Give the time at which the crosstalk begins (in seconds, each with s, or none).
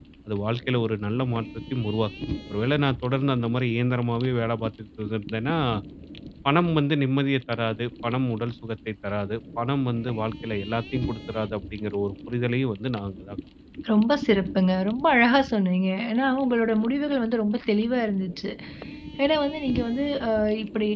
none